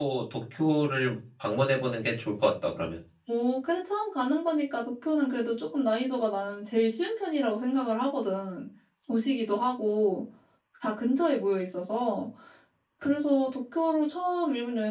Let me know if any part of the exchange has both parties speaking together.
No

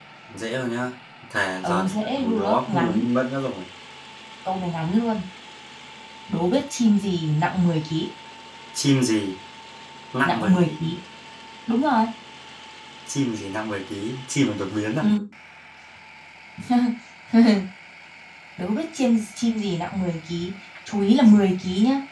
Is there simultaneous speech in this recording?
Yes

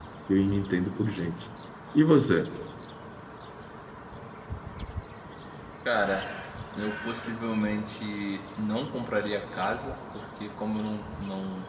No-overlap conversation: Yes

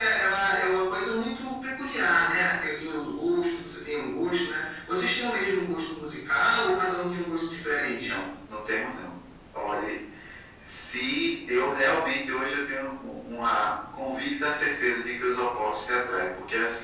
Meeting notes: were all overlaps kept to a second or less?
Yes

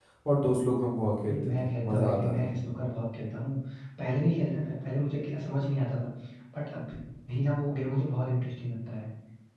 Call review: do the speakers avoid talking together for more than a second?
No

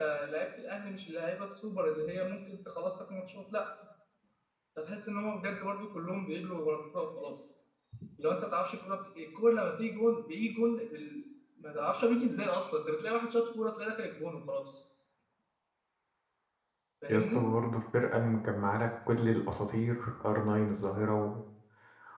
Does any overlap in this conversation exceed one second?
No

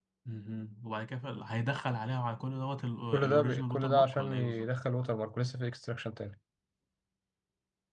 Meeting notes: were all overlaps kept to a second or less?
No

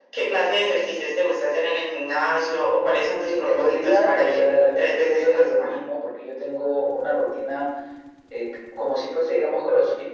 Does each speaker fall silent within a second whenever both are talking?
No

